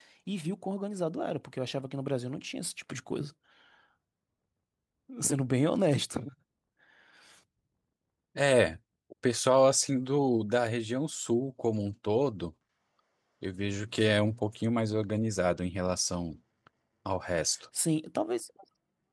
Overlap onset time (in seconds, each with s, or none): none